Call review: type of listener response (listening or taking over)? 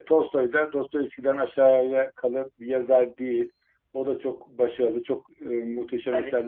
listening